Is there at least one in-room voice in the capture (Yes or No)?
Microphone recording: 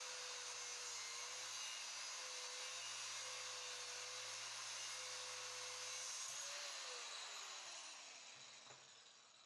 No